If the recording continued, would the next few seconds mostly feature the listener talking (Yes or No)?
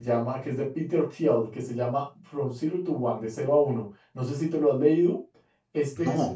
No